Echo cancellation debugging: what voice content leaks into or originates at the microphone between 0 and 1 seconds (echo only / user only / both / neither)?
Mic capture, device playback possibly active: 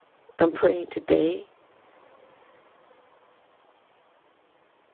user only